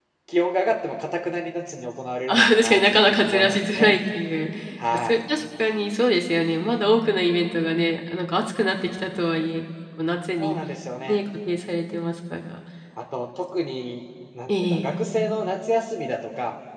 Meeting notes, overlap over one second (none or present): present